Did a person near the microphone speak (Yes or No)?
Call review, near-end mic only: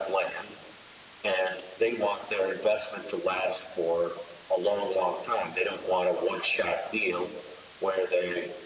No